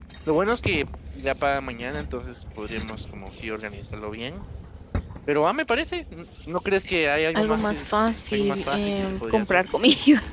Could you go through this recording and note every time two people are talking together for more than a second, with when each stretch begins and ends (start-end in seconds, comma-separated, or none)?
8.3-9.6